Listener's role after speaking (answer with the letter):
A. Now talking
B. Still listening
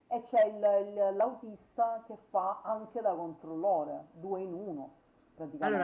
A